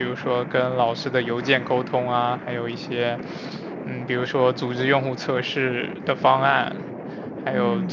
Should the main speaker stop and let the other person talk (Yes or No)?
No